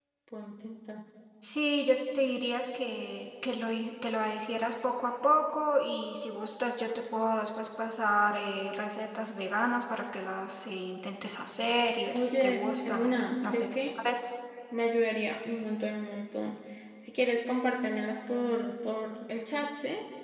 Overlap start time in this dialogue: 12.1 s

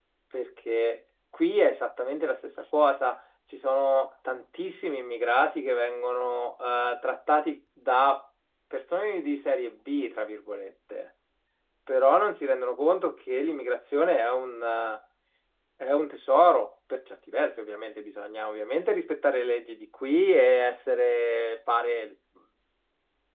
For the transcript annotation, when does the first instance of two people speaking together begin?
none

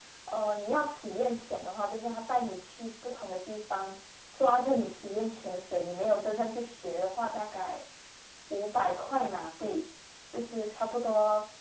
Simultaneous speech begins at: none

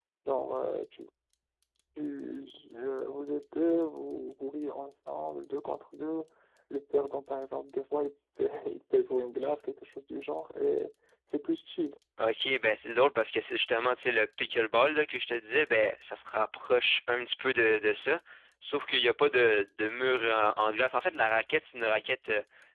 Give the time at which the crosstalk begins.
none

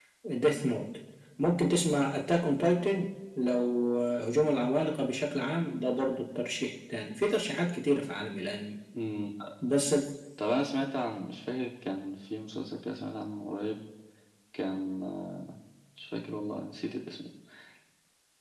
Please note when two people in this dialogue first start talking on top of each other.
none

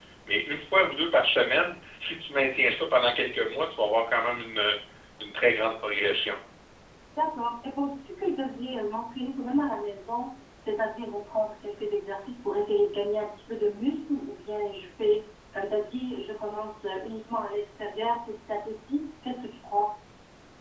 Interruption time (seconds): none

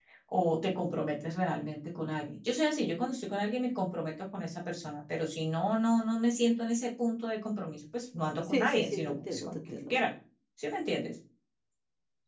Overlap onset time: 8.5 s

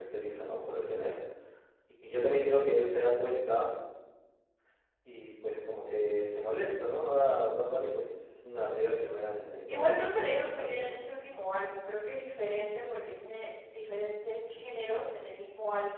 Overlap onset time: 9.7 s

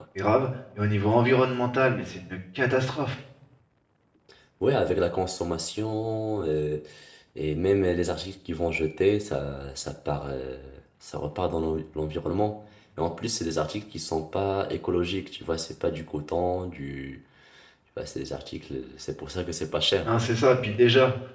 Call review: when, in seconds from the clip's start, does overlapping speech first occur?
none

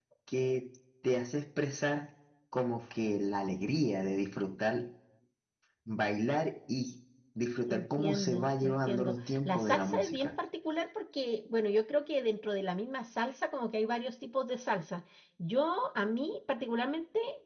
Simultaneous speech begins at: 7.7 s

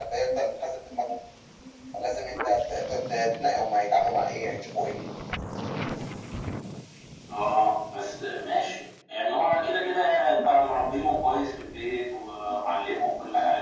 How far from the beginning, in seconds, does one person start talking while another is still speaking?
none

